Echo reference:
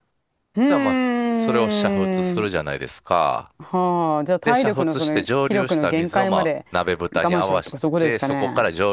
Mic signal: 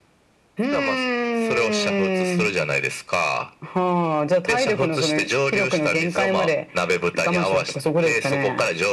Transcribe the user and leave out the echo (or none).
none